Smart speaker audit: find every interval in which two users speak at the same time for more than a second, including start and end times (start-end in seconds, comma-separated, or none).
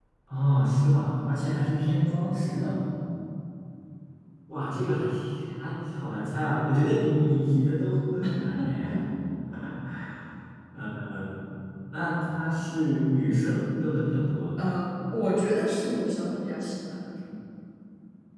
none